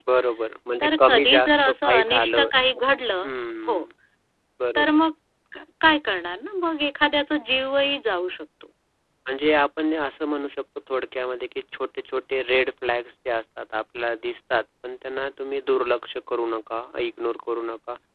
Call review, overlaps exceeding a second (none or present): present